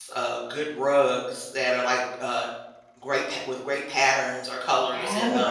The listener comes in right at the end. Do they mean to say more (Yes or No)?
Yes